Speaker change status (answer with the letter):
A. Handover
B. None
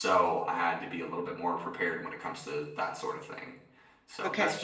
B